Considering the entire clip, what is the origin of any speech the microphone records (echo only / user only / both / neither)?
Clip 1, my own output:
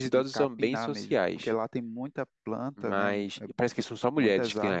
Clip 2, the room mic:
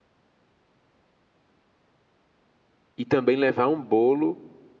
user only